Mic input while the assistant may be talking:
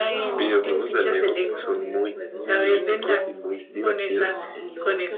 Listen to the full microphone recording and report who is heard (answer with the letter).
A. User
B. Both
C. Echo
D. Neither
B